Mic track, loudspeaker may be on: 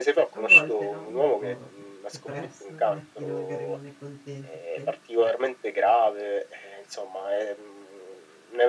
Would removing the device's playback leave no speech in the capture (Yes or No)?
No